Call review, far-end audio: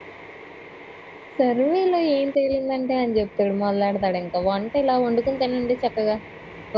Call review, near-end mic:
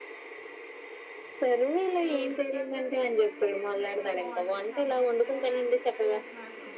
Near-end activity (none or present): present